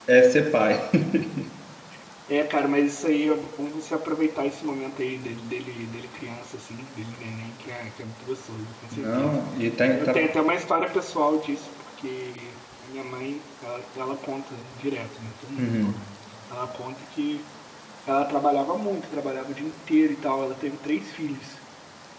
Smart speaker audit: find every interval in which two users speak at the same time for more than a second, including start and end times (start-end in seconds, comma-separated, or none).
none